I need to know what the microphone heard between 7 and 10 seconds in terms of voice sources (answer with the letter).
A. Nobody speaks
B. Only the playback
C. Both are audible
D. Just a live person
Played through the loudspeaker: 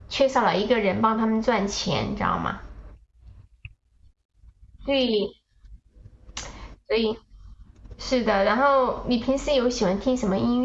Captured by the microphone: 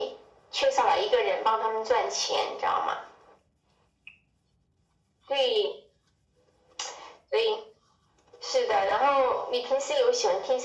B